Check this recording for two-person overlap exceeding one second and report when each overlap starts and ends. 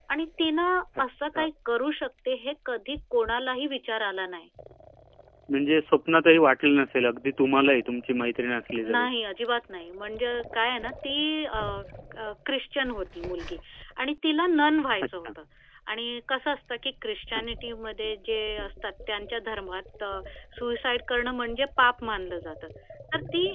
none

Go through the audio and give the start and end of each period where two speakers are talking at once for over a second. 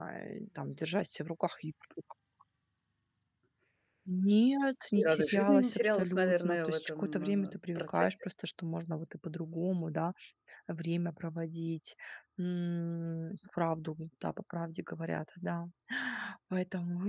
4.9-8.1

